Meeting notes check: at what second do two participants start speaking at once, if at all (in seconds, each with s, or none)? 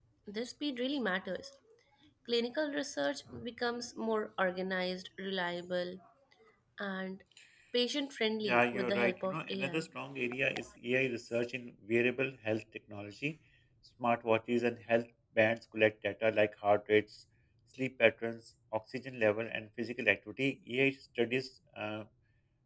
8.5 s